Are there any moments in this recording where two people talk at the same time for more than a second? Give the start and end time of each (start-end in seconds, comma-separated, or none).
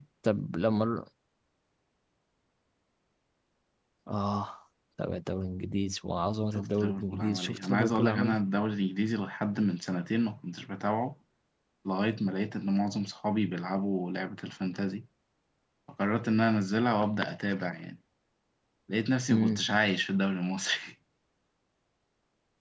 6.5-8.4